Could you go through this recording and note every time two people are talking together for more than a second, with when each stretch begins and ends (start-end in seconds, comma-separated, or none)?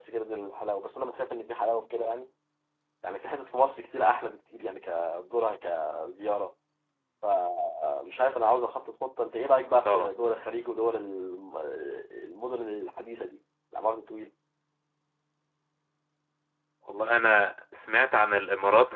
none